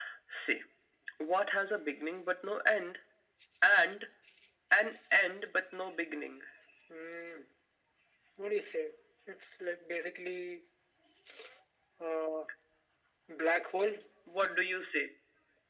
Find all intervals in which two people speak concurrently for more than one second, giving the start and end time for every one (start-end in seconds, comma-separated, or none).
none